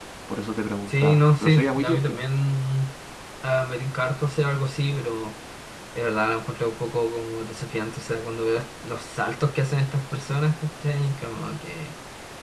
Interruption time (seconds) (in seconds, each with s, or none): 0.9 s